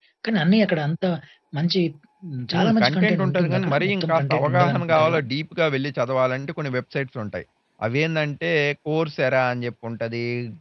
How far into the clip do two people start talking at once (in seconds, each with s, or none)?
2.5 s